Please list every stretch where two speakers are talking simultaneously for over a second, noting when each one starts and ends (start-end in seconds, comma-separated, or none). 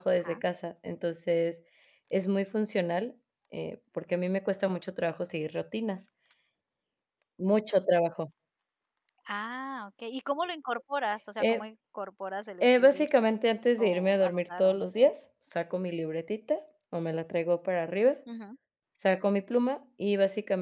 13.8-15.1